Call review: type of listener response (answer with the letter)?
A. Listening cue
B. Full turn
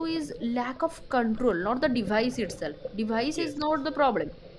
A